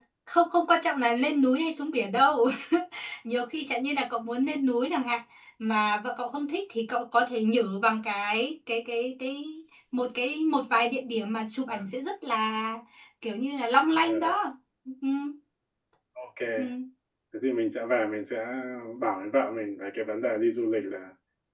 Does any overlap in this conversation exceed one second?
No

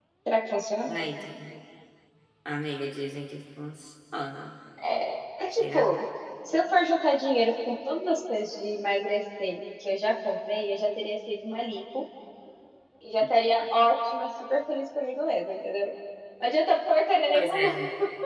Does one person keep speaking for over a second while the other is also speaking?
No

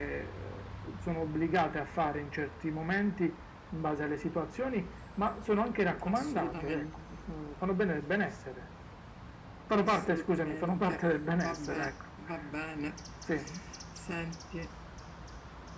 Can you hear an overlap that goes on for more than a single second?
Yes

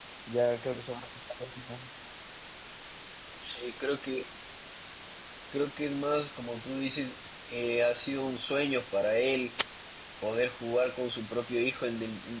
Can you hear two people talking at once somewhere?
No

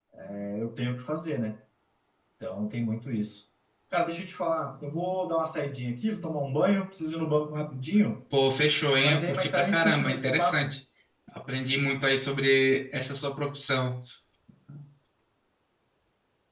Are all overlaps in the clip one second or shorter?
No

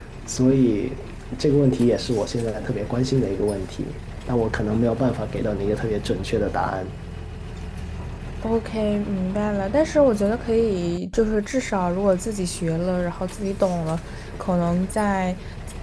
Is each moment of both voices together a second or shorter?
Yes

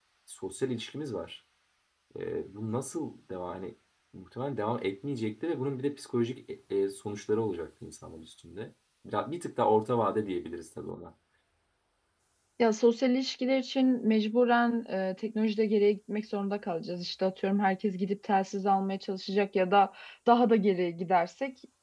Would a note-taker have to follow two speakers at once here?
No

